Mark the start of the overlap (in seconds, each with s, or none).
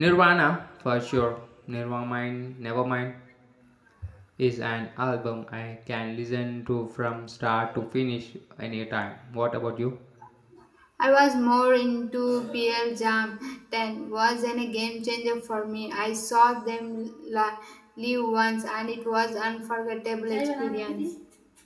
none